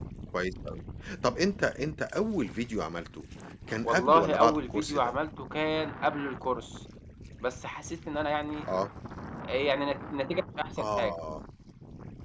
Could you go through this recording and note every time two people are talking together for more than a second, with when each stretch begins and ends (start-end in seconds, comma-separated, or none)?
3.8-5.1